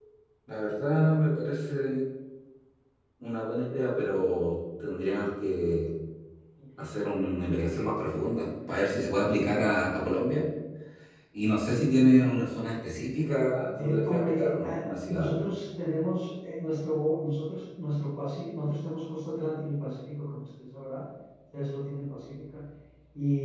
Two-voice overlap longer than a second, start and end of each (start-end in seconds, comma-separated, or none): 13.7-15.4